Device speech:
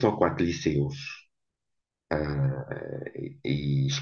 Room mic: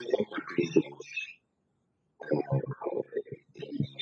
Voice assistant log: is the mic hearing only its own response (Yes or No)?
Yes